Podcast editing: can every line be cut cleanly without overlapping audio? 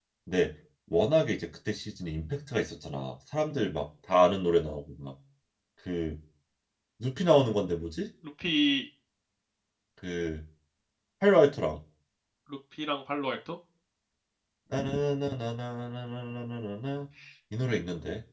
Yes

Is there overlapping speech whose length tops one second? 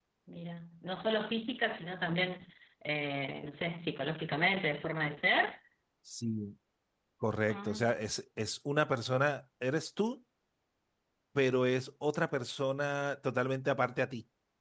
No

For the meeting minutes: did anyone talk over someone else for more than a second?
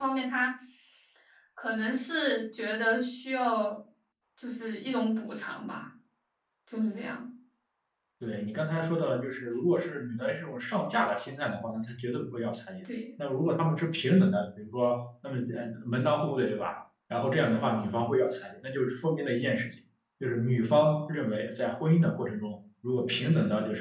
No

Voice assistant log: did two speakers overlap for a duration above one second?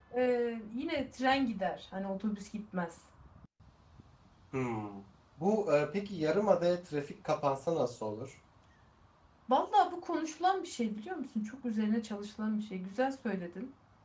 No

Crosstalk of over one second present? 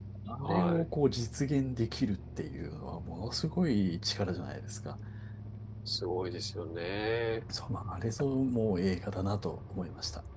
No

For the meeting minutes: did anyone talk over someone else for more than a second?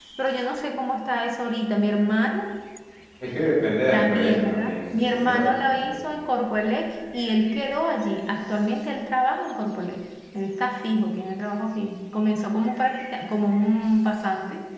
Yes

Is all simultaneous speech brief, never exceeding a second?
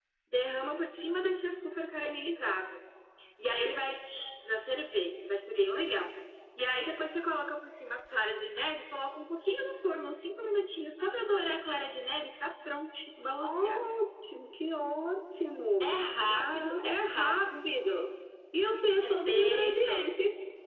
No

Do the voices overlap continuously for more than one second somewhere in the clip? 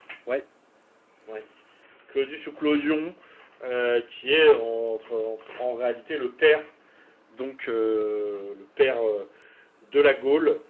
No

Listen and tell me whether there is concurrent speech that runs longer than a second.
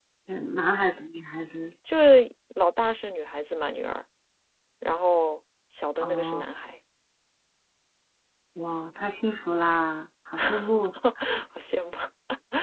No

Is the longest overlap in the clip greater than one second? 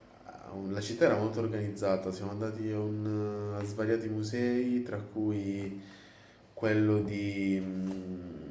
No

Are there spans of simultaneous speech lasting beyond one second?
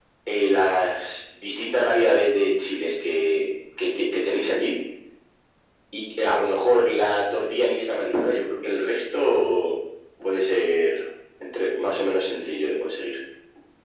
No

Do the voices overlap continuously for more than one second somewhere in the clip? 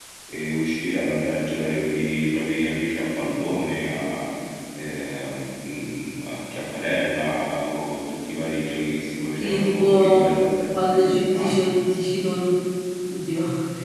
Yes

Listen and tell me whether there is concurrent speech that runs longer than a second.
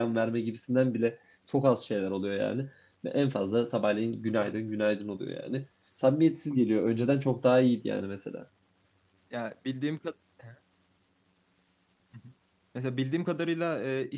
No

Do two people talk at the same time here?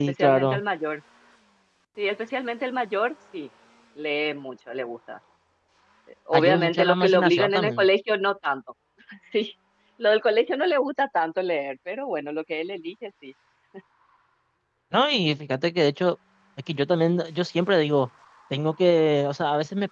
Yes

